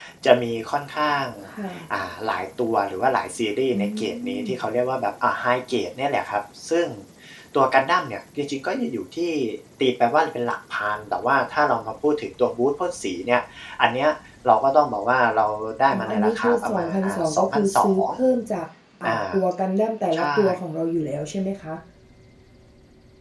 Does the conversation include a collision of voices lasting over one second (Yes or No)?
Yes